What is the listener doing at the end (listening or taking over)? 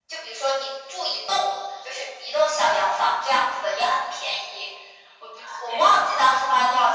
listening